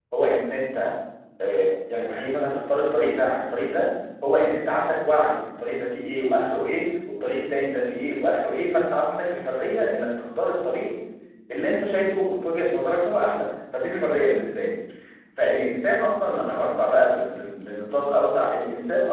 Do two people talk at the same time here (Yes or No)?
No